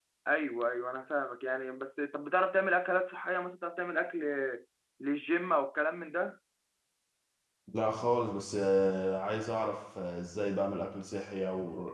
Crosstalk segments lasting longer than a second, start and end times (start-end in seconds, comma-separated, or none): none